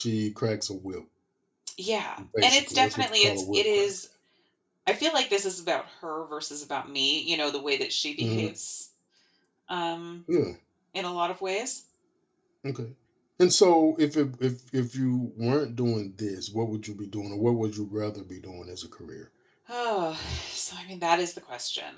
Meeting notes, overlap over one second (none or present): present